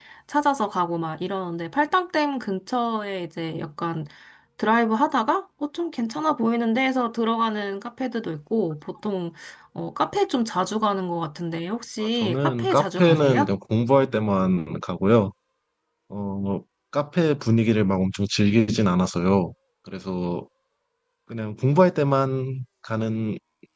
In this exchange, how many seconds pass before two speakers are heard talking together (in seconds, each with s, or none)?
12.2 s